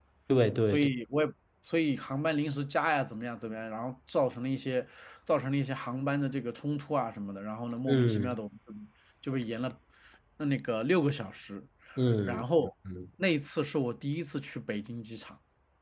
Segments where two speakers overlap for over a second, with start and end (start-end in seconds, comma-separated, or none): none